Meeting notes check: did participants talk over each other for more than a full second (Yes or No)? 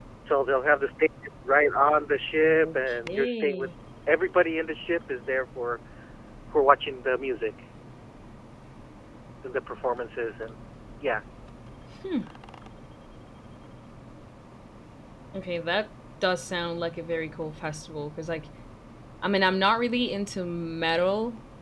Yes